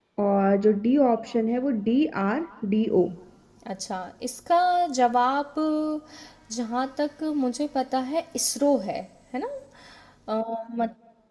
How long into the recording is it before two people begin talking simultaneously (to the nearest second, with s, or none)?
none